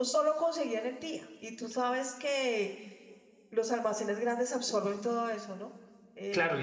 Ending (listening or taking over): taking over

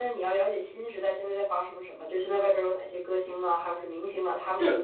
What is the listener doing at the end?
listening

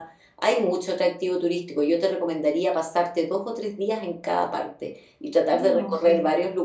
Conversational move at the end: listening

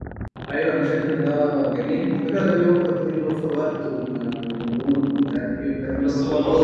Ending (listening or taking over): taking over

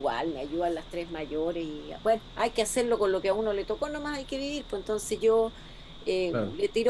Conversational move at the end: listening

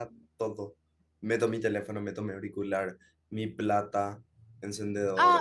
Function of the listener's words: taking over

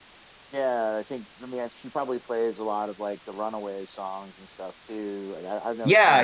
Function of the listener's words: taking over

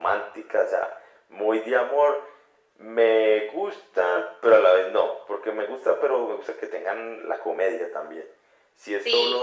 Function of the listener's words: listening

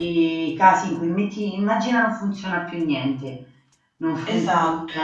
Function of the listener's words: listening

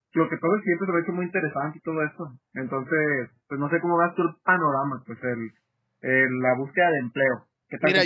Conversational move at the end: taking over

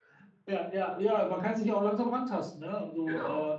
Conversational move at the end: listening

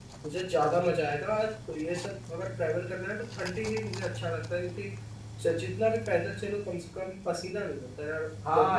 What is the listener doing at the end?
taking over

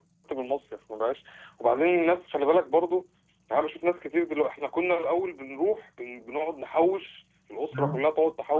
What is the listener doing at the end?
listening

